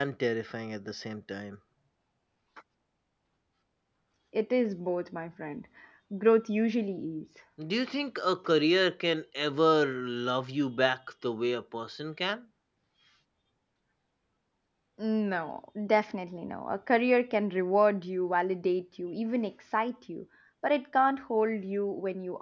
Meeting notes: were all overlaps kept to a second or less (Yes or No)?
Yes